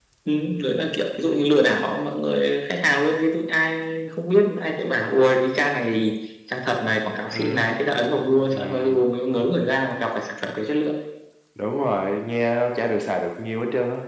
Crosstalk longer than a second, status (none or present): none